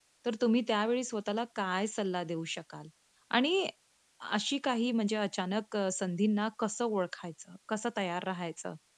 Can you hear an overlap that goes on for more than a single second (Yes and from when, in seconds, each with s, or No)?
No